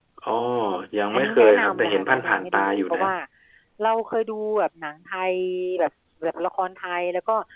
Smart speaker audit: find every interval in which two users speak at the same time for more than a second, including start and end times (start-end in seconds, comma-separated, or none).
1.1-3.0